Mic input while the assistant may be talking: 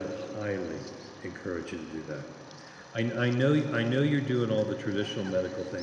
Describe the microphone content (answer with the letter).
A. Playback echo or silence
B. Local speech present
A